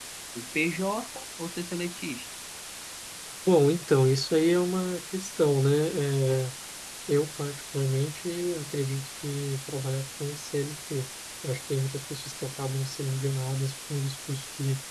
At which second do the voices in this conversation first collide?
none

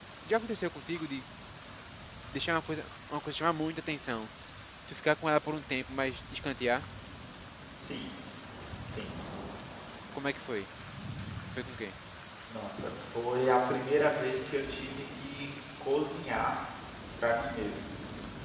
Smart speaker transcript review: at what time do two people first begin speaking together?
none

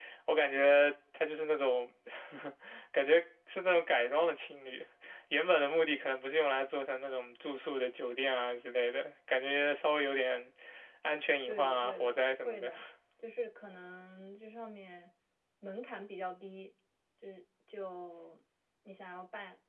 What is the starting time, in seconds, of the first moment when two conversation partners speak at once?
11 s

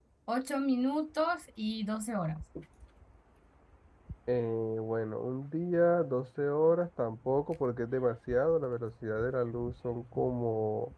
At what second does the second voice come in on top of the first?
none

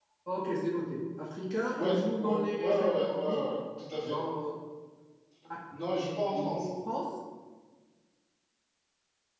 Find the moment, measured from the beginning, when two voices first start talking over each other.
2 s

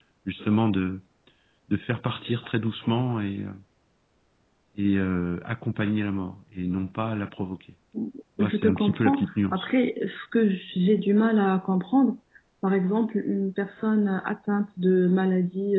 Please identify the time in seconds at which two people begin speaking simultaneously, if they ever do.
8 s

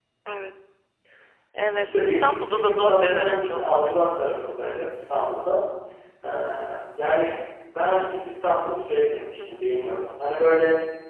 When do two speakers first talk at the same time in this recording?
2 s

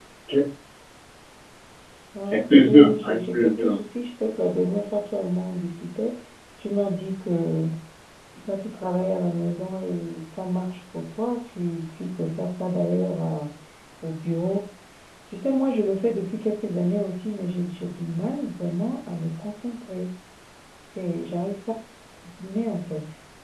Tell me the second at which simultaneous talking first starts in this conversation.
2 s

